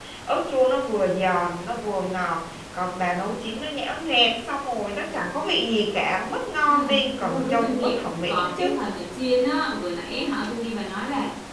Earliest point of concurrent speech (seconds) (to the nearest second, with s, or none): 7 s